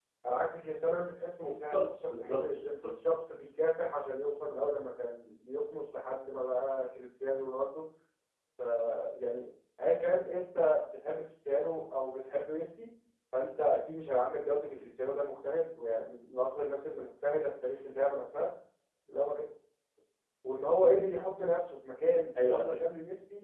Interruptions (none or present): present